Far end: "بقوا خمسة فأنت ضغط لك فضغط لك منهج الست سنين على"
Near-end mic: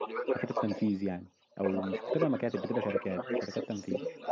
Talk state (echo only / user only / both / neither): both